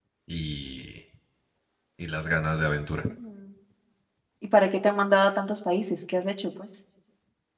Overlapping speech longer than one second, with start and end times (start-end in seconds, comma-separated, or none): none